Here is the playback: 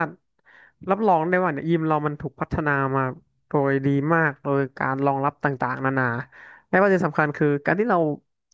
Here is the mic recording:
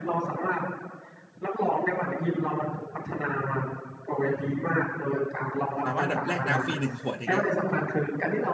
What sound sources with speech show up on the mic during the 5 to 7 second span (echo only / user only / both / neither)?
both